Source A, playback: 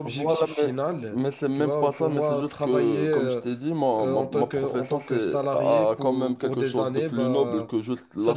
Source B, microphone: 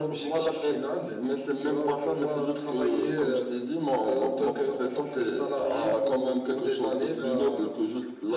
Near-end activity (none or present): none